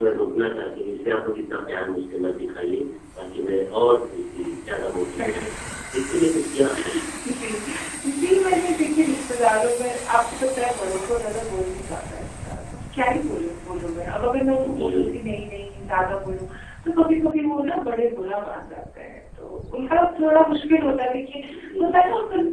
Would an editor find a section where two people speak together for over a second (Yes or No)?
No